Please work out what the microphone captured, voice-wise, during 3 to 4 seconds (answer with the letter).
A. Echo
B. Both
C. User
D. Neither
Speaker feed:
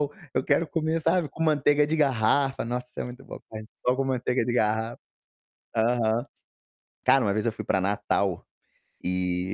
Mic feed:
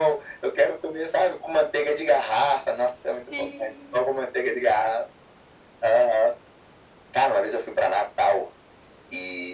B